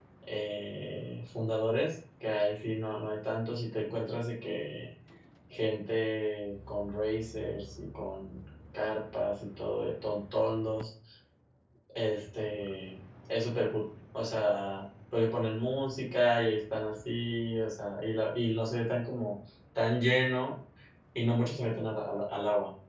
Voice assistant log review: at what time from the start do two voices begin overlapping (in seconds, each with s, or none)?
none